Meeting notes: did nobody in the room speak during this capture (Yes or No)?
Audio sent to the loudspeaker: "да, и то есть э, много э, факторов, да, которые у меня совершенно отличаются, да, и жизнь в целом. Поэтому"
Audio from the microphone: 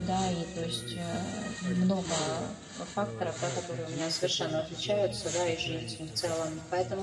No